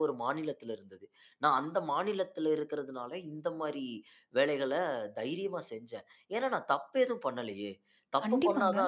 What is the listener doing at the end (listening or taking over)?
listening